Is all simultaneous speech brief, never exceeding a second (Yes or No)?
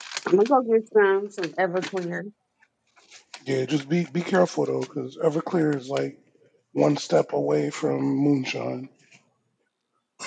Yes